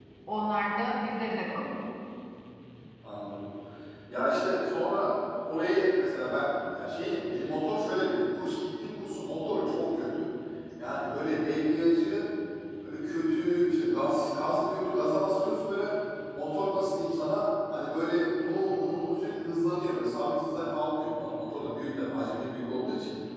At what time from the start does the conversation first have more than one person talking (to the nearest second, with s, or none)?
none